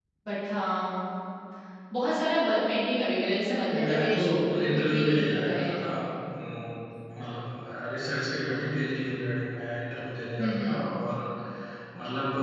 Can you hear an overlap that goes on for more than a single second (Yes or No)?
Yes